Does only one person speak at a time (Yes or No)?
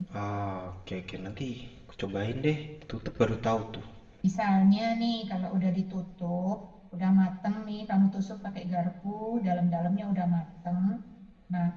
Yes